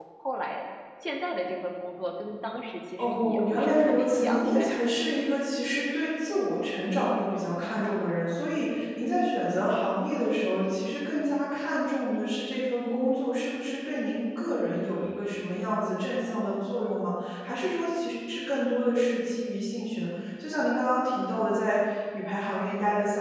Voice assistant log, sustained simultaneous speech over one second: present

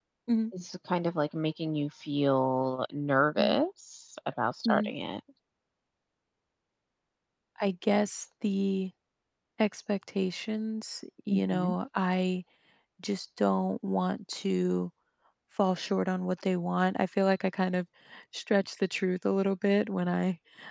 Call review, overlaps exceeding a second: none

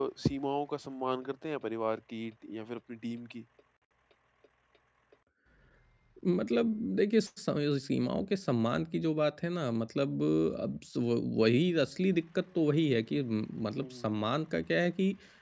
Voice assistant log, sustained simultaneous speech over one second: none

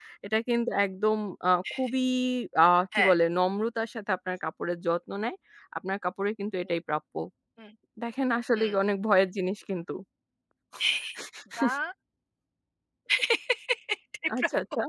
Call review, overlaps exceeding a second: none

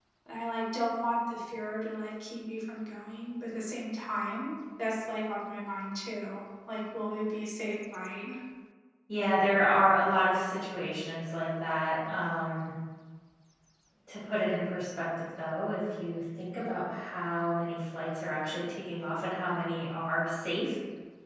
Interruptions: none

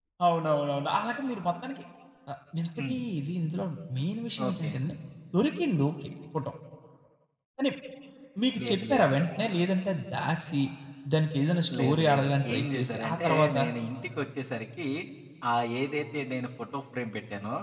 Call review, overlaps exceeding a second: present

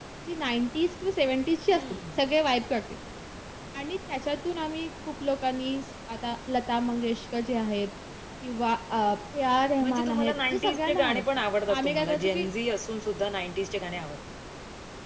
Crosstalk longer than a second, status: present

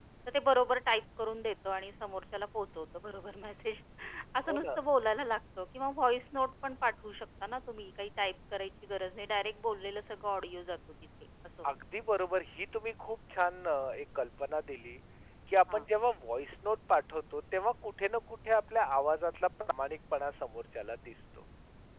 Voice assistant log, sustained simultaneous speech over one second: none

